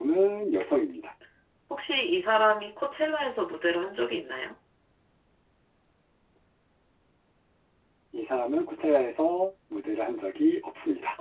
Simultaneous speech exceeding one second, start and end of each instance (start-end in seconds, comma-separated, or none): none